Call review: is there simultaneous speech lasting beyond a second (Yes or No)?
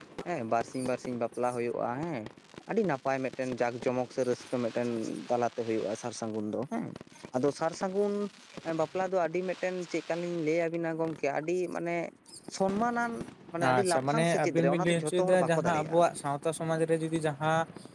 Yes